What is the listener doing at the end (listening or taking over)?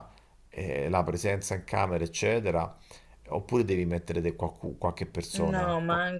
taking over